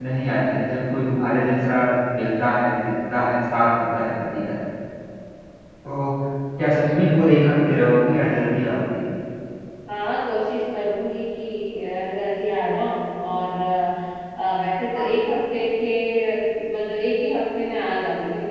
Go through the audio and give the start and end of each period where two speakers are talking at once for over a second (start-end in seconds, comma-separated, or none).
none